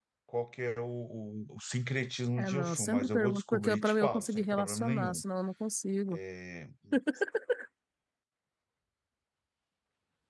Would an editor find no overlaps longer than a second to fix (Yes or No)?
No